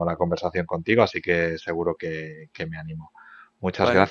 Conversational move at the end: listening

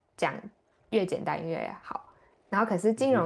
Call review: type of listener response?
listening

